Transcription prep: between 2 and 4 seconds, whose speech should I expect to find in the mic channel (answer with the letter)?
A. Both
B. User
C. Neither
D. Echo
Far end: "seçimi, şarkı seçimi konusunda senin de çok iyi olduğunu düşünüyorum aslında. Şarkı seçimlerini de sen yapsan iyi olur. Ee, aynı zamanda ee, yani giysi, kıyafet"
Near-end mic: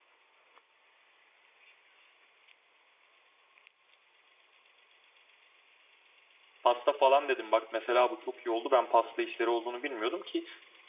C